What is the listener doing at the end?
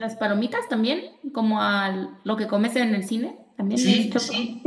taking over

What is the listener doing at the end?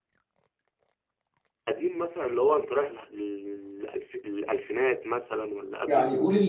taking over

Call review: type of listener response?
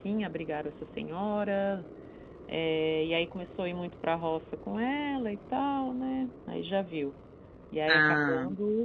listening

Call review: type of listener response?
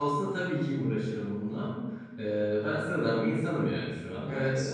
listening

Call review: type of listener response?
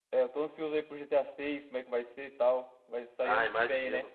taking over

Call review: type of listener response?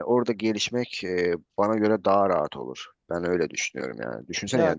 listening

